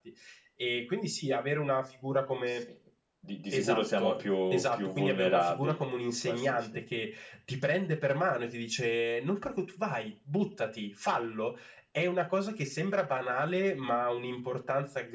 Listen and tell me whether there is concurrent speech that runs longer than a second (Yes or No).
Yes